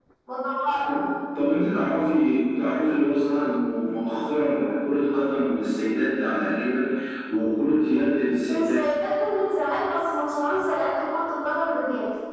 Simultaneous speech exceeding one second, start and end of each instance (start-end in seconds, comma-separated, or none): none